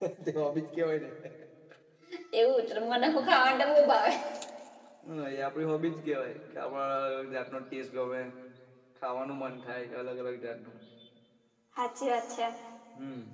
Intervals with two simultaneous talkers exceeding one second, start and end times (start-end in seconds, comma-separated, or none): none